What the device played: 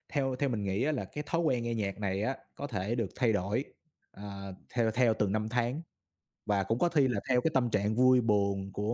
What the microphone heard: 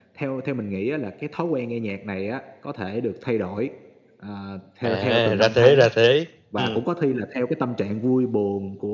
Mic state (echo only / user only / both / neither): both